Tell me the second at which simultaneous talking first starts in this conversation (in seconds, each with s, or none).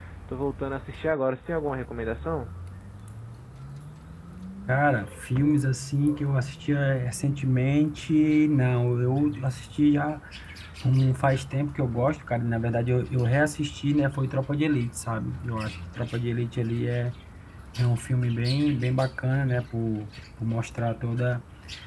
none